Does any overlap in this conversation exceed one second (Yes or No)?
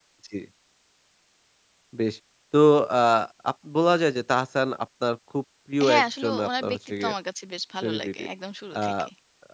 Yes